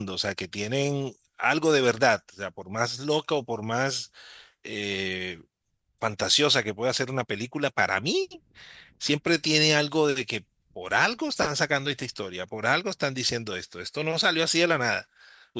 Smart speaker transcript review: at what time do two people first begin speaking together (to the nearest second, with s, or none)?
none